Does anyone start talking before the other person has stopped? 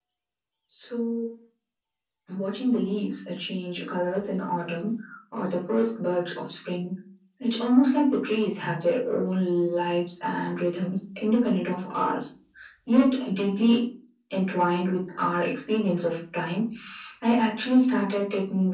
No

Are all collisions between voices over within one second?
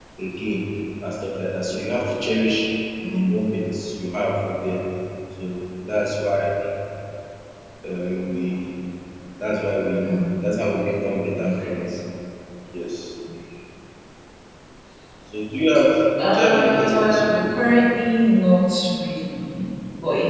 No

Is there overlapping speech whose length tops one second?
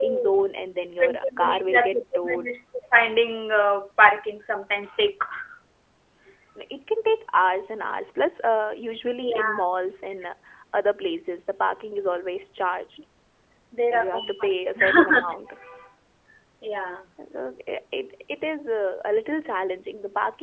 Yes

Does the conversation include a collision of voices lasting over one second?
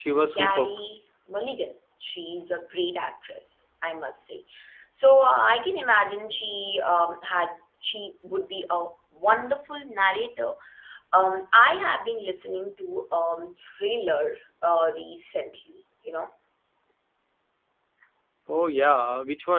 No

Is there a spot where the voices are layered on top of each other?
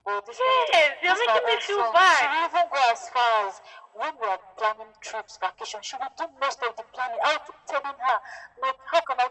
Yes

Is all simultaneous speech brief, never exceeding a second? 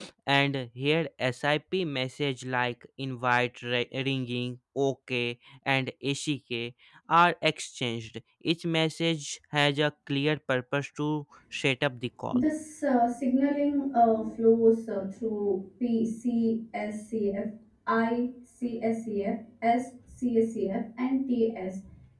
Yes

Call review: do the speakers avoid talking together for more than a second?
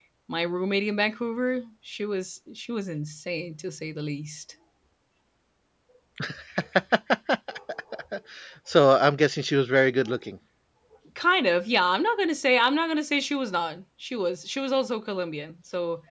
Yes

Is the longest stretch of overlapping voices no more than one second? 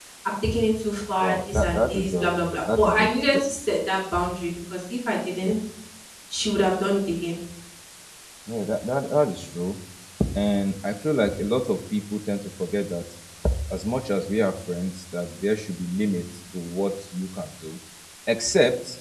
No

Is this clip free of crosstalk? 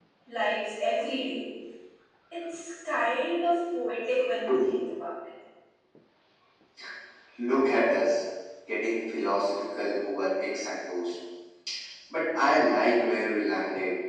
Yes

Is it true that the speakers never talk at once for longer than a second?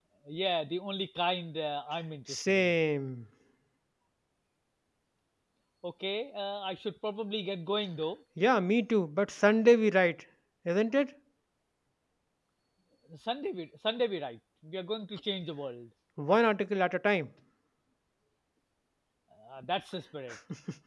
Yes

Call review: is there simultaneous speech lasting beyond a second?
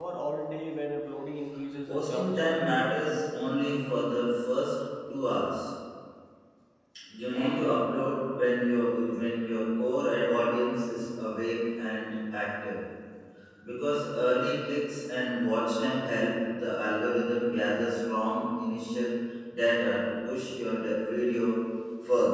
Yes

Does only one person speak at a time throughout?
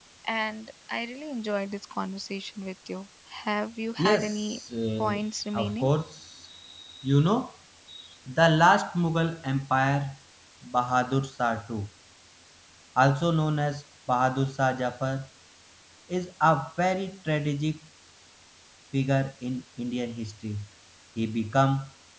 No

